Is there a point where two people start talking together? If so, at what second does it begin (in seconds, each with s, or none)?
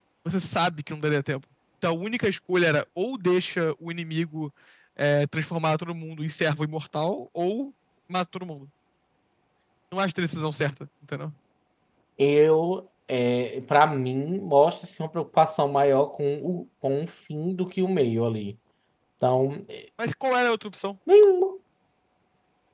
none